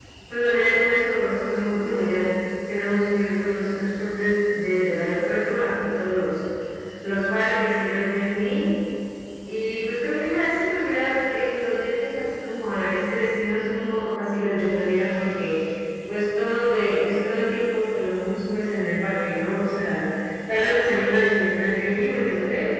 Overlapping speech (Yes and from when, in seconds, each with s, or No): No